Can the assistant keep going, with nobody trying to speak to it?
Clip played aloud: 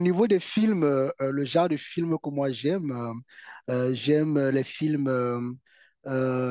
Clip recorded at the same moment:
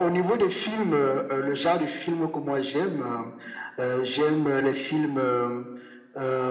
Yes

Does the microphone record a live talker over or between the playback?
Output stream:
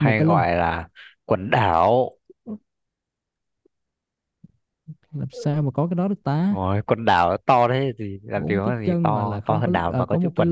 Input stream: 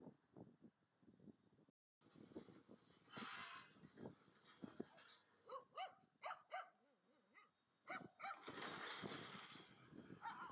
No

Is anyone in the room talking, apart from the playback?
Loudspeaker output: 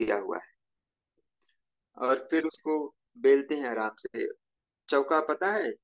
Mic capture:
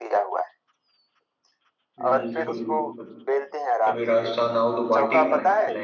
Yes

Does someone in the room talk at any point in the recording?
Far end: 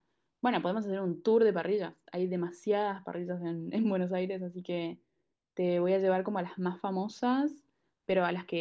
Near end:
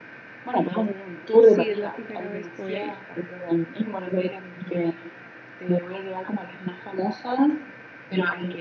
Yes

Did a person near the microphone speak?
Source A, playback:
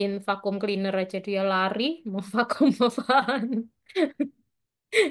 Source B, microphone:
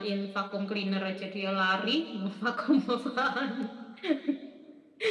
No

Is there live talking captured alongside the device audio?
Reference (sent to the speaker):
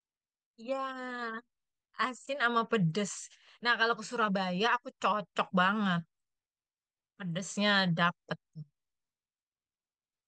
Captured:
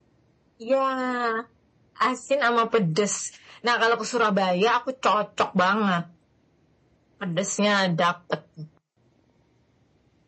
No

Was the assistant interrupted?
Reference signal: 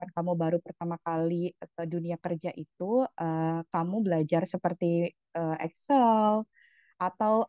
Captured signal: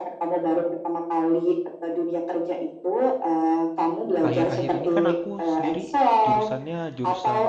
Yes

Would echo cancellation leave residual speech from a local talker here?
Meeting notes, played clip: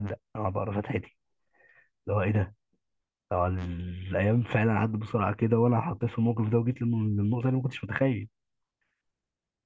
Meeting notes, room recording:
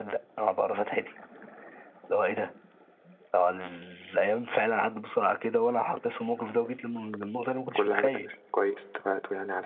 Yes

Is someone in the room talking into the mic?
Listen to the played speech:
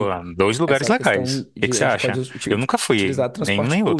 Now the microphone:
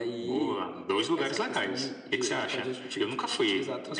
No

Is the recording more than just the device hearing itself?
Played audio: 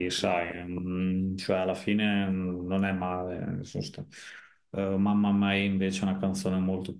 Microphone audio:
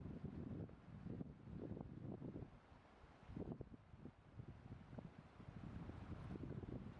No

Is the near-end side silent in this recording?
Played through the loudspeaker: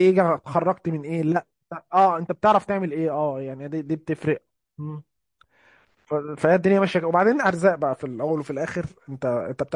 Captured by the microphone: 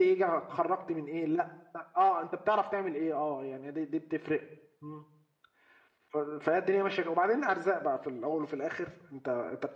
Yes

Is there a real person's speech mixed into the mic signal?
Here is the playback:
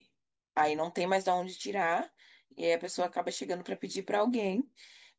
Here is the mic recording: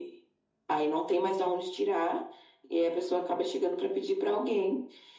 No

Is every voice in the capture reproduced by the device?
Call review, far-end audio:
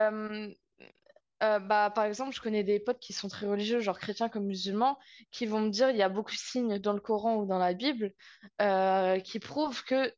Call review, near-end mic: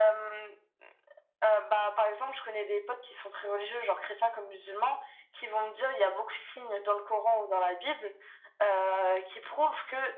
Yes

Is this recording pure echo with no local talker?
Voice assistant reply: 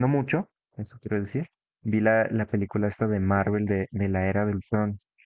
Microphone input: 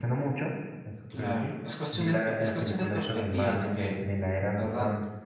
No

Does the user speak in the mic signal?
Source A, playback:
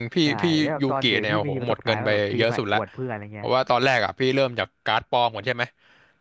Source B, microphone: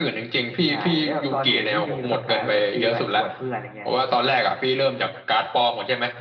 No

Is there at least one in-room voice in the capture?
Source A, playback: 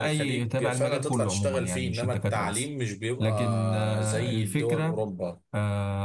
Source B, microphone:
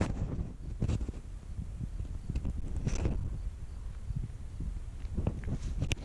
No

